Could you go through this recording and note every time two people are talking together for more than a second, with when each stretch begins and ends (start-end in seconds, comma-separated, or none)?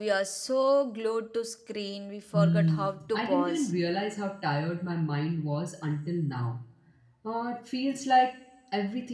2.3-3.7